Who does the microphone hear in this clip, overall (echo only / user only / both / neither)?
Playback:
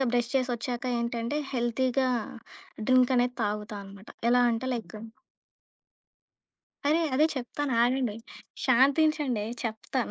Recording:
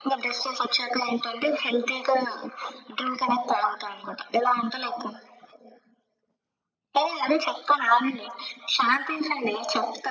echo only